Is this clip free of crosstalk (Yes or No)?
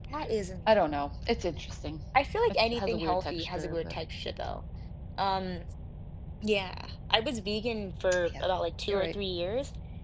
No